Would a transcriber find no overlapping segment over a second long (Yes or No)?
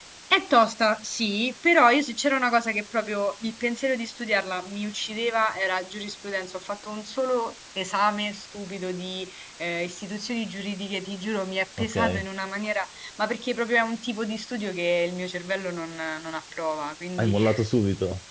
Yes